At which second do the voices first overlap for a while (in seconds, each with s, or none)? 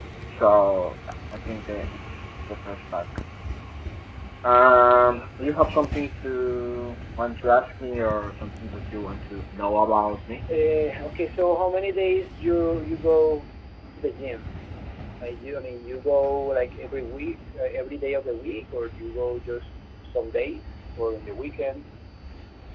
none